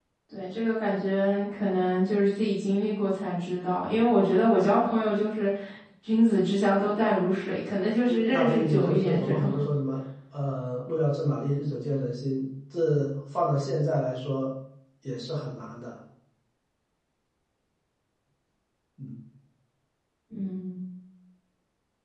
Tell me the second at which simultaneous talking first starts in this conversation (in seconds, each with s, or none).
8.0 s